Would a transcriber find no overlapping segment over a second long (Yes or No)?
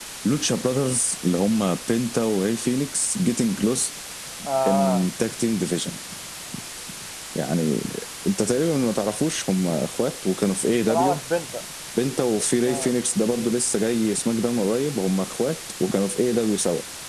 Yes